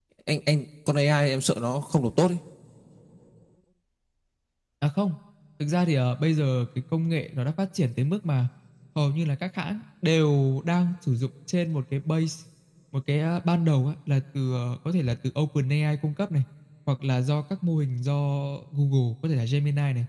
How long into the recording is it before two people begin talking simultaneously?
none

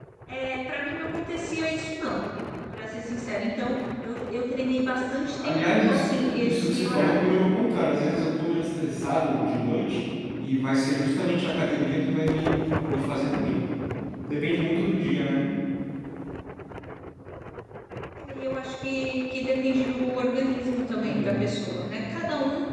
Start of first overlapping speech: 5.4 s

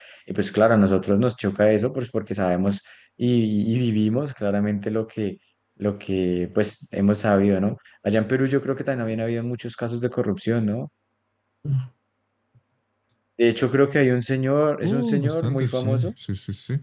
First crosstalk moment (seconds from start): 14.8 s

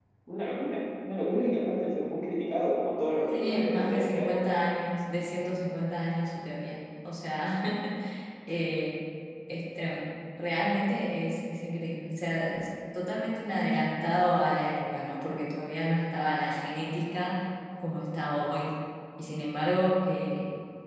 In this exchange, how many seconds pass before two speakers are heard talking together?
3.3 s

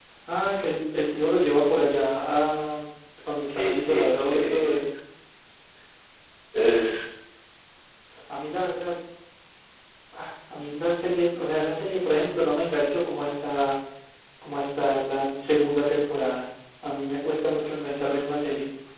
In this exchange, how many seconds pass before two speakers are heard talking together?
3.5 s

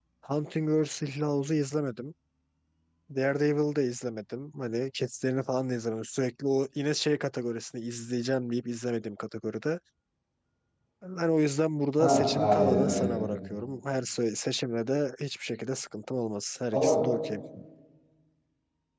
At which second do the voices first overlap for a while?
12.0 s

